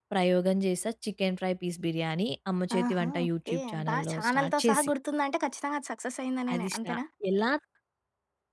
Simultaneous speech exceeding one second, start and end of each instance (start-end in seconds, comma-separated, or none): 2.8-4.9